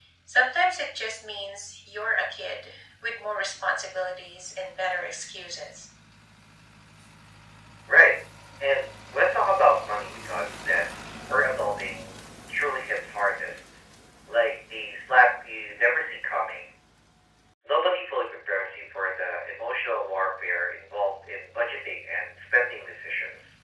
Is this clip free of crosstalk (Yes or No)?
Yes